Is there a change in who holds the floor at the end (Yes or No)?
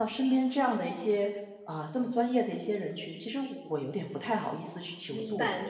Yes